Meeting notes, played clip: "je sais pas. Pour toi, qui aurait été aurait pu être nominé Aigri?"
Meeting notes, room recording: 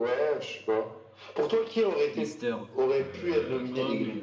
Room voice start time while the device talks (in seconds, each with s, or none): 2.1 s